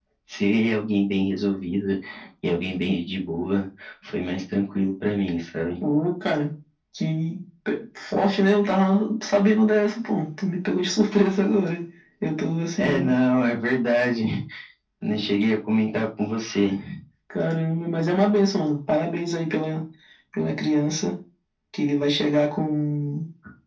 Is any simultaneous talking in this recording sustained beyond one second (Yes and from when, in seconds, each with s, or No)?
No